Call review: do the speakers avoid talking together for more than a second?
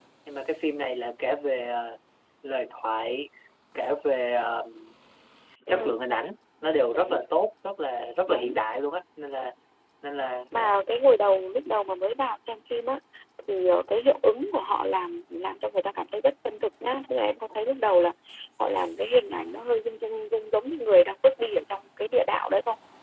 Yes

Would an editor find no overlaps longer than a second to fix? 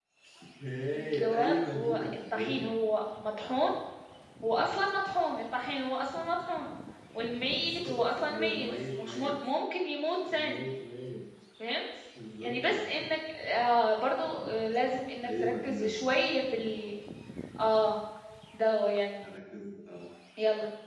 No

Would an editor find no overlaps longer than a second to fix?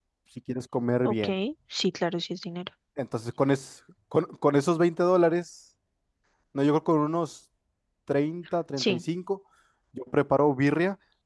Yes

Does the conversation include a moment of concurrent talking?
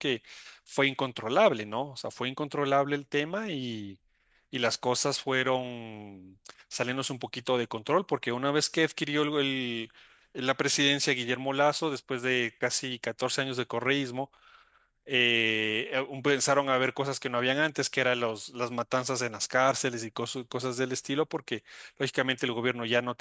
No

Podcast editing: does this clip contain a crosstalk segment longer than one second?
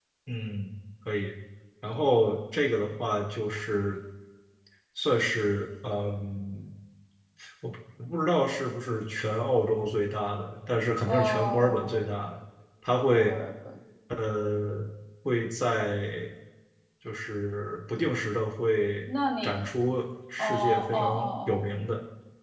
Yes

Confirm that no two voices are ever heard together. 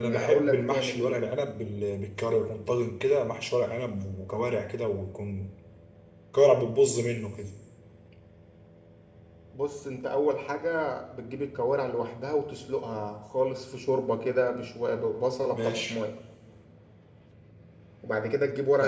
No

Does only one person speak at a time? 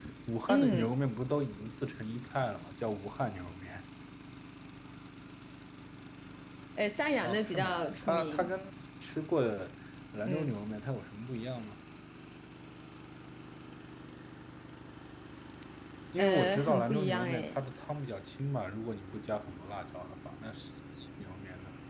No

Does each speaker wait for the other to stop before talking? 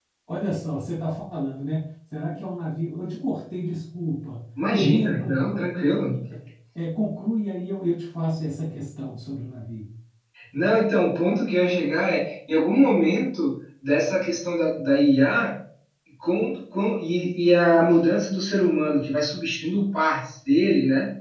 No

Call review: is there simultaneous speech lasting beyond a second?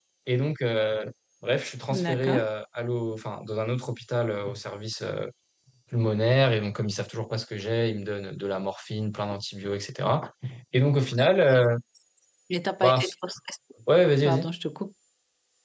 No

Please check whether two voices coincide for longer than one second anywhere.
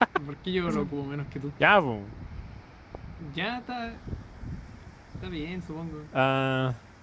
No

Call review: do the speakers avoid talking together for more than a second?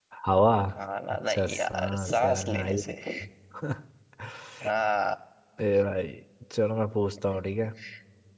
No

